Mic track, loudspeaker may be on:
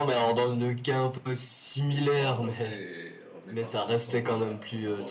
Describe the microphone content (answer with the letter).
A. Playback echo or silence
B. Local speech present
B